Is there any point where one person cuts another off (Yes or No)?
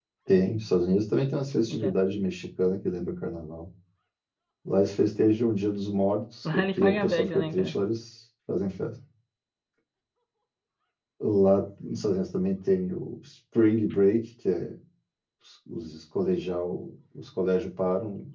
Yes